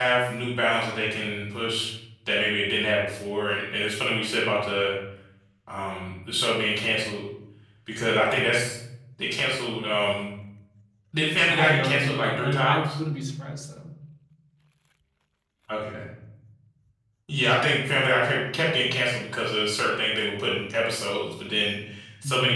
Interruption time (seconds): 11 s

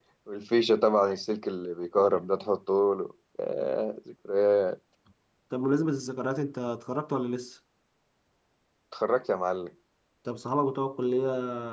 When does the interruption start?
none

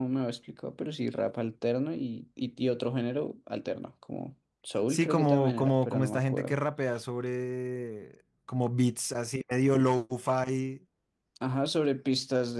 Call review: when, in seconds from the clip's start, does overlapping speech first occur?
5 s

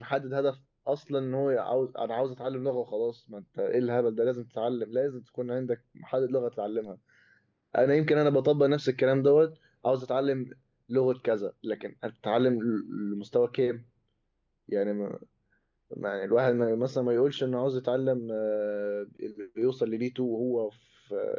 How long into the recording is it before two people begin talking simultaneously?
none

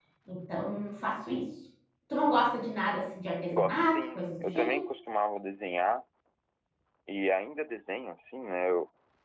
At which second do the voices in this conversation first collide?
4 s

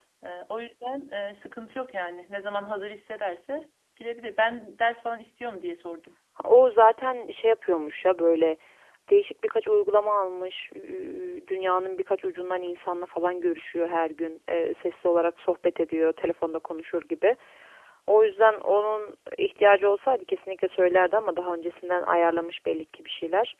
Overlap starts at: none

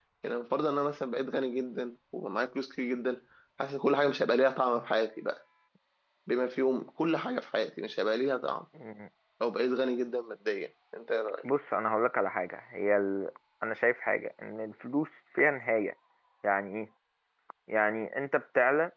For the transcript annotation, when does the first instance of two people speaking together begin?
none

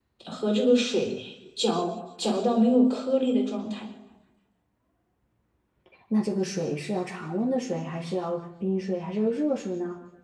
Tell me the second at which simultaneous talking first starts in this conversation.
none

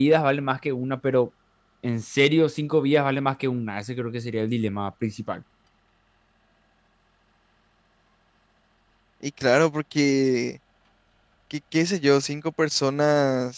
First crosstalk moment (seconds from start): none

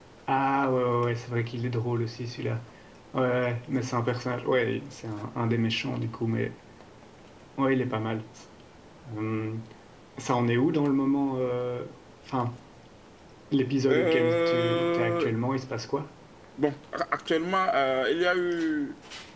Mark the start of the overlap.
14 s

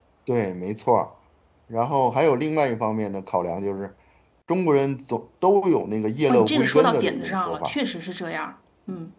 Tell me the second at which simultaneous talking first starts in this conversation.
6 s

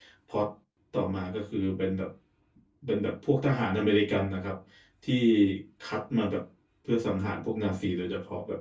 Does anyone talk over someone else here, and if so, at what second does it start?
none

